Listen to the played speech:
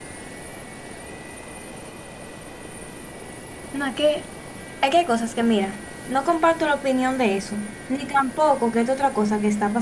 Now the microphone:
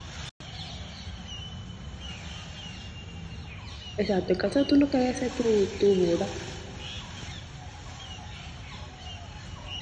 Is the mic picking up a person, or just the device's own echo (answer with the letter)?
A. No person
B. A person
B